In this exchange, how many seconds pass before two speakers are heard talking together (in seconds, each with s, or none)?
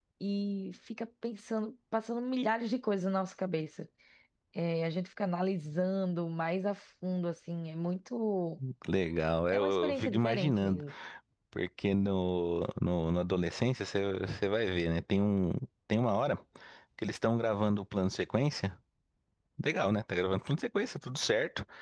9.5 s